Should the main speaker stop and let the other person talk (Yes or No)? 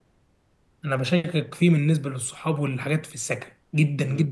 No